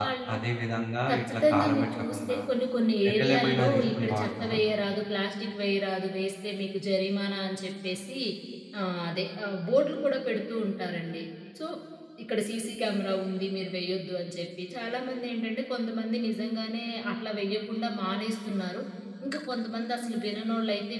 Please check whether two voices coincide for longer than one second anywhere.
Yes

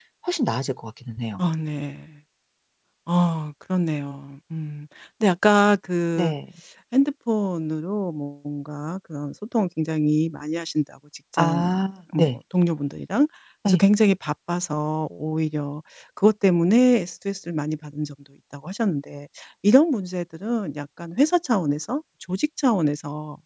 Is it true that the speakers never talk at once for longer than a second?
Yes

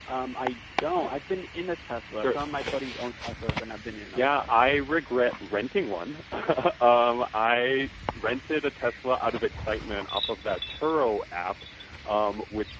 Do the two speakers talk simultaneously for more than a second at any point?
No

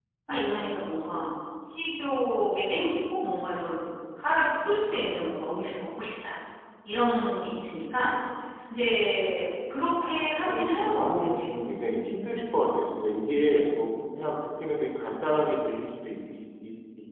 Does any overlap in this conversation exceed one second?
Yes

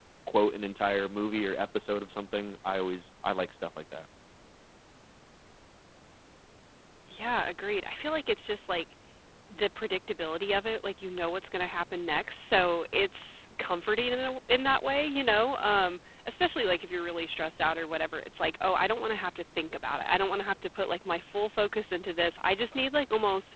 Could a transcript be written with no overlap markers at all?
Yes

